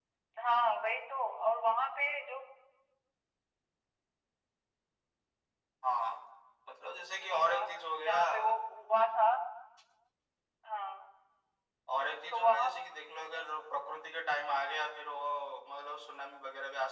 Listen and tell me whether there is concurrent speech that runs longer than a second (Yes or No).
No